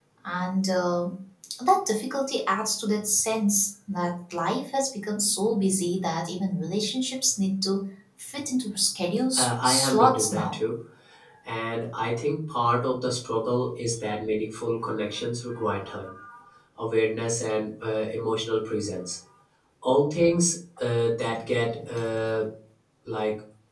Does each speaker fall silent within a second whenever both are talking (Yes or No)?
No